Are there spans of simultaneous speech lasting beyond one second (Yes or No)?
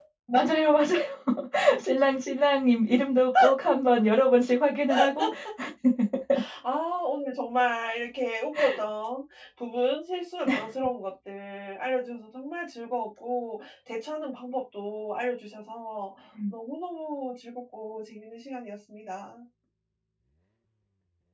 No